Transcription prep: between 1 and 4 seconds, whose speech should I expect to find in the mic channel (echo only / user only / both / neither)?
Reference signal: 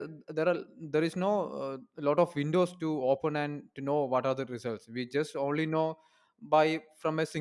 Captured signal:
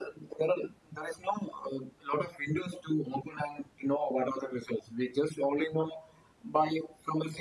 echo only